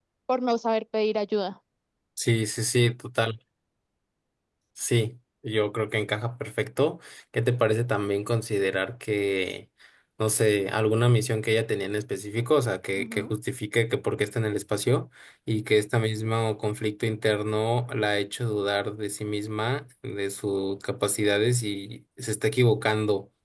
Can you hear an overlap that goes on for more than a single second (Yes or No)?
No